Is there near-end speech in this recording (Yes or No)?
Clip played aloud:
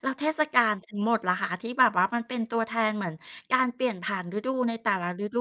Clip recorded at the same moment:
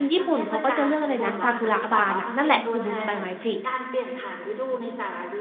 Yes